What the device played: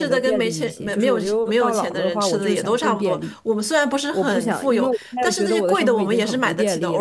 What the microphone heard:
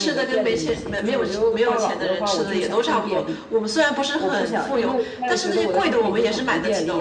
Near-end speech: none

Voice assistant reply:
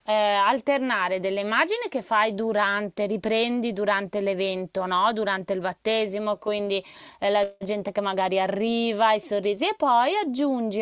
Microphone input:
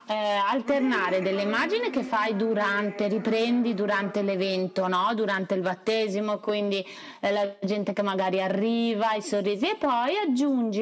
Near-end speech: present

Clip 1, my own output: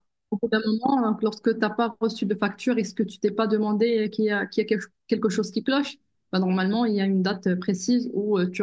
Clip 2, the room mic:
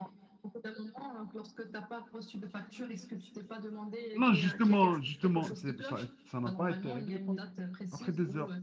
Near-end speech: present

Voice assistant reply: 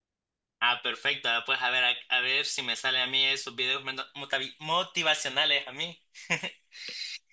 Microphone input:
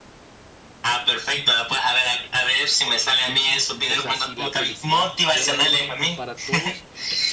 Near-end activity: present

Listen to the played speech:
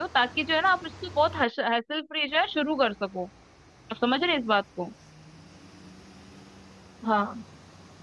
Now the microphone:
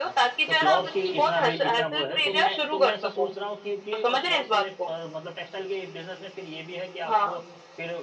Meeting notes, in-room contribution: present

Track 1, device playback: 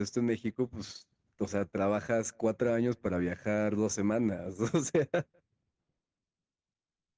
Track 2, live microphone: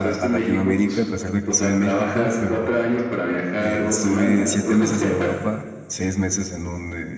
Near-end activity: present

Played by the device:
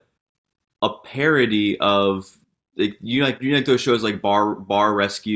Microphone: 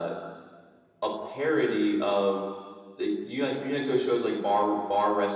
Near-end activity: none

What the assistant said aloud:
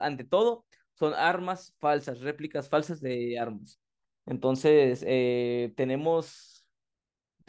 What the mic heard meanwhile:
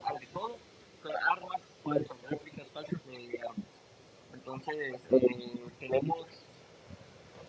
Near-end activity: none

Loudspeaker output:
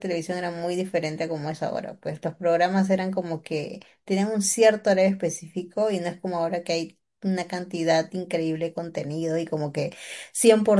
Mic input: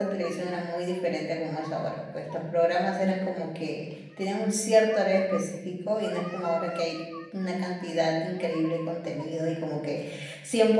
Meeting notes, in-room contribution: none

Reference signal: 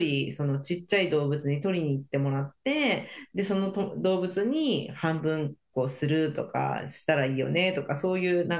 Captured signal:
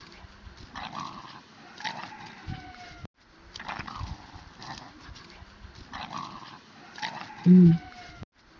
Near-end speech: present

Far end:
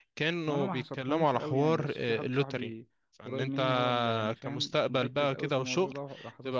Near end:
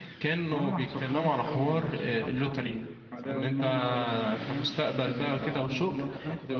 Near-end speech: present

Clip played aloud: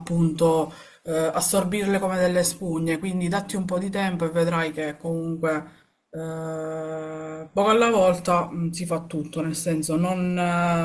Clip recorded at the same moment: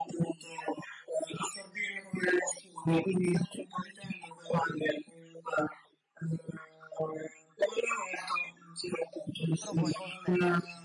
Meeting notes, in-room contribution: present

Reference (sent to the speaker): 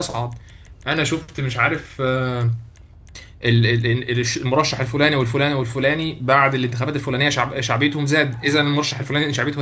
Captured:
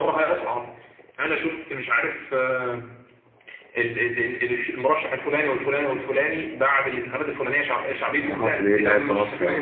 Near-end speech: present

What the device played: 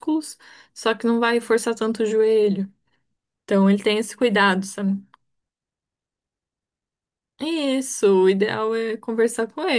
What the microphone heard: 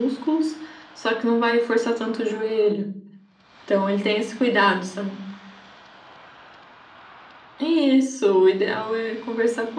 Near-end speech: none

